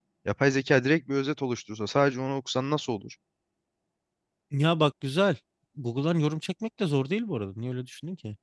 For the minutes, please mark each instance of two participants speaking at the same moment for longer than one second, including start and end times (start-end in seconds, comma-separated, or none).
none